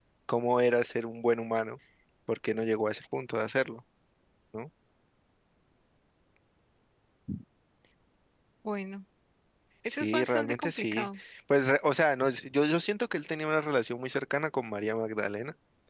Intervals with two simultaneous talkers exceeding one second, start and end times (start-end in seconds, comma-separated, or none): 9.9-11.1